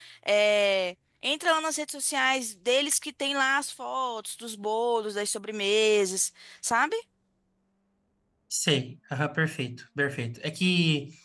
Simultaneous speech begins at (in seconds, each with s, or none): none